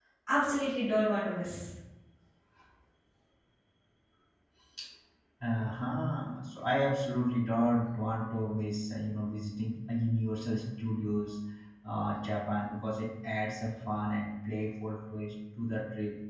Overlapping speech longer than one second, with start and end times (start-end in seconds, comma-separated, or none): none